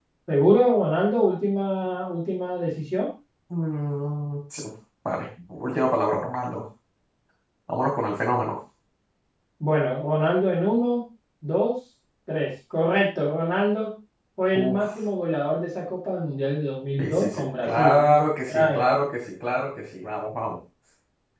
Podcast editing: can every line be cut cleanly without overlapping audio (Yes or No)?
No